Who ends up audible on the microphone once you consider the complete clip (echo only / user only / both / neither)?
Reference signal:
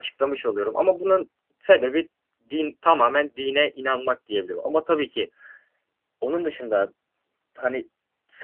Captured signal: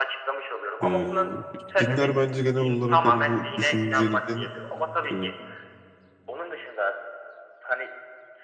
both